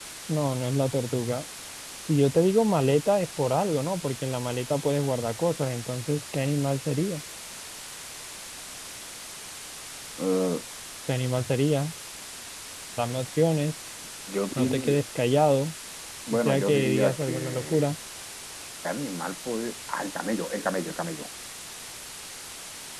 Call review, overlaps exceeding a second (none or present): present